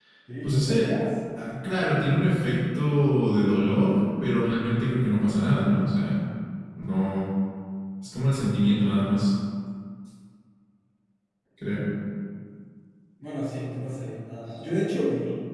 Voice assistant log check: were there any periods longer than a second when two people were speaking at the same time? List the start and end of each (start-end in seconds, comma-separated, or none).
none